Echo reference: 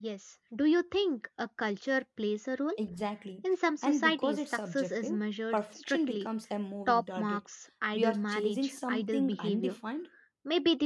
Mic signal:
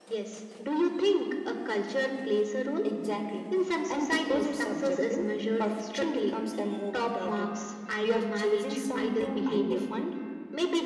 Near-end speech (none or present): none